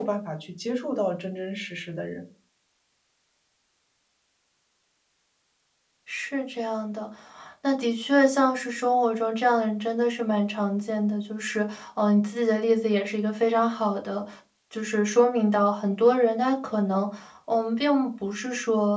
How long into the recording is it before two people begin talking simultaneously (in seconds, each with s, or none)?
none